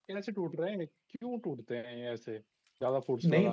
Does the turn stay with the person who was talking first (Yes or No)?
No